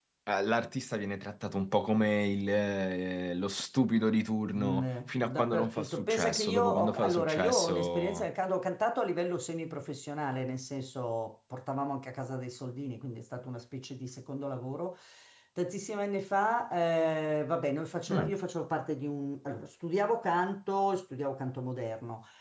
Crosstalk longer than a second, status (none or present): present